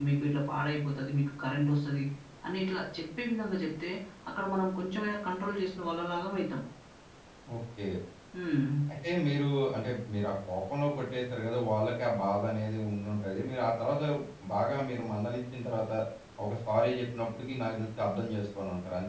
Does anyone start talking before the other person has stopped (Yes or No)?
No